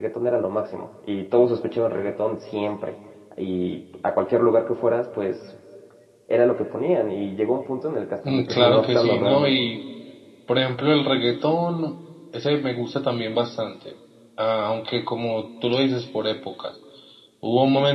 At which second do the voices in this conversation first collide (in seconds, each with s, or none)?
8.2 s